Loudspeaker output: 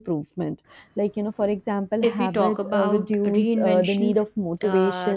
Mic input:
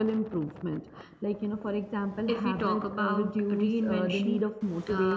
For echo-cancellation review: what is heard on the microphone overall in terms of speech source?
echo only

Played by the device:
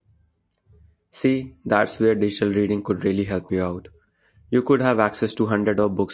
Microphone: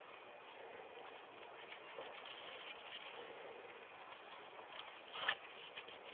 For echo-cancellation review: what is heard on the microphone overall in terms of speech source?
neither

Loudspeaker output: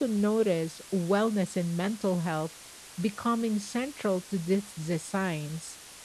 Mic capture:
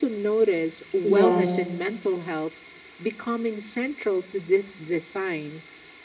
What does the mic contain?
both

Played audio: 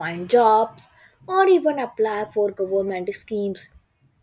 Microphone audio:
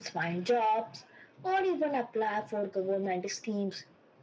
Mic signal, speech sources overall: echo only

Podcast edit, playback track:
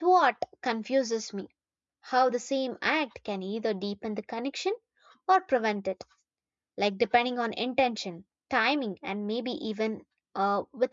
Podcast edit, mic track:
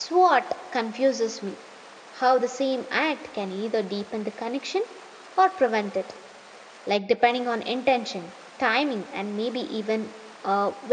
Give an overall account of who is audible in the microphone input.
echo only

